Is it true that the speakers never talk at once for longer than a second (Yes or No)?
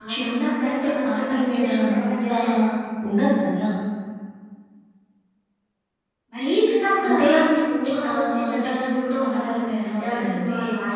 No